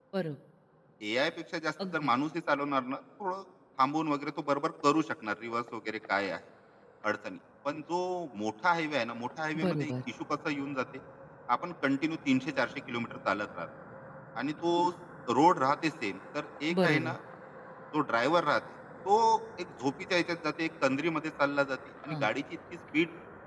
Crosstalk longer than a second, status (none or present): none